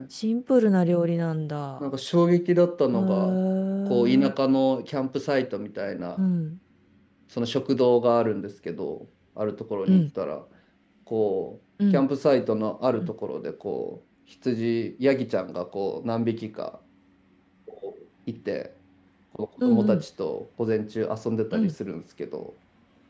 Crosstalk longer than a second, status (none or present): none